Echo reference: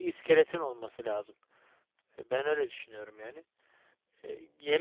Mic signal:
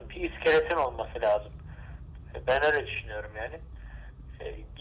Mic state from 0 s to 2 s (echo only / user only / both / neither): echo only